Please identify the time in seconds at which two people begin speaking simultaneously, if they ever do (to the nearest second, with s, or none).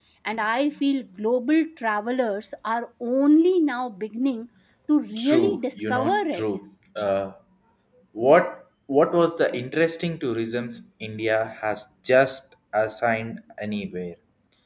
5 s